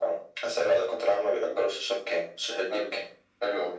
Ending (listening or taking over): taking over